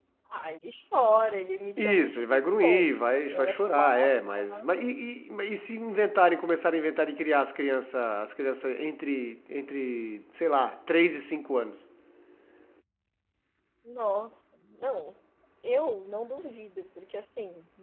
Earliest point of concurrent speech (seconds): 2 s

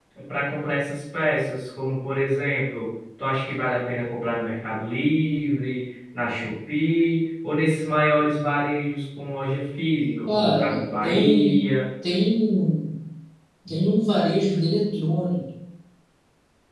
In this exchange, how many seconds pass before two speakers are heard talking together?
10 s

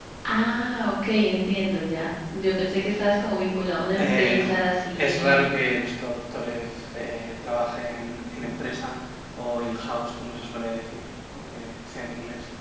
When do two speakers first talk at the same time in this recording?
4 s

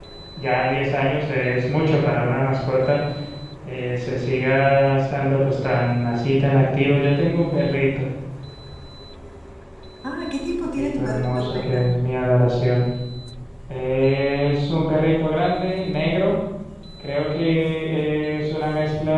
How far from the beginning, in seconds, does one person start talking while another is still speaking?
11 s

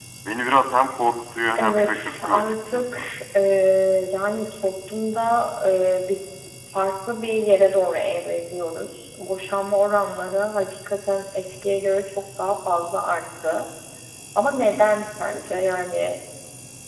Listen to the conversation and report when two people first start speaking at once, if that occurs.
2 s

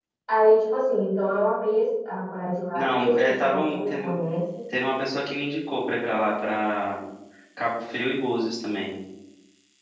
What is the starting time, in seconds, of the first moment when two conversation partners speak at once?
3 s

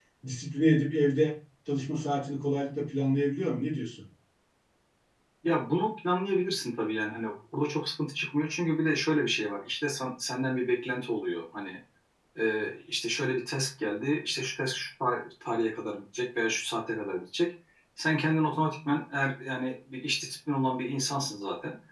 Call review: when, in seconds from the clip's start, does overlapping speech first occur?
none

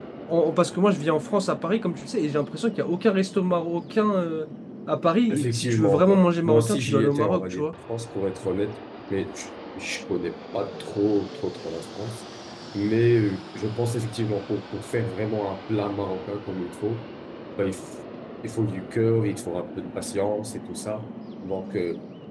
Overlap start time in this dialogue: 5 s

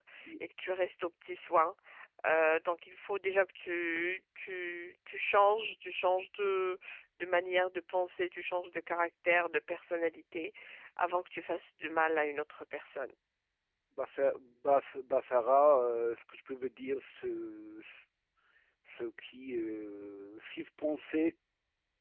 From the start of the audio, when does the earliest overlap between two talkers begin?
none

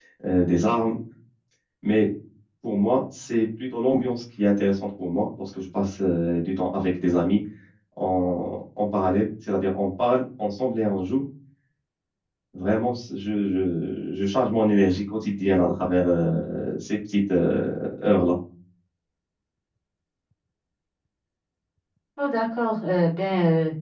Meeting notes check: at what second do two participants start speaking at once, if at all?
none

